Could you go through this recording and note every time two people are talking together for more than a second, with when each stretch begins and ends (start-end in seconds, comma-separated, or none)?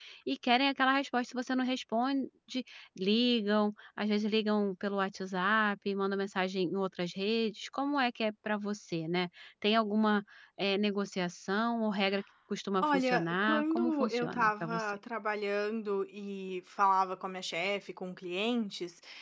12.8-15.0